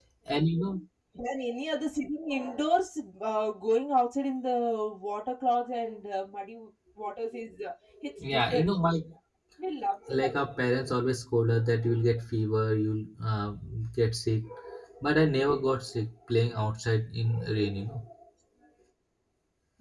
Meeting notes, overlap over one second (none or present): none